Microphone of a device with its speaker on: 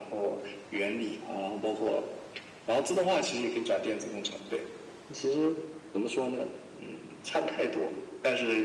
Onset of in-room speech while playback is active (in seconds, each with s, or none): none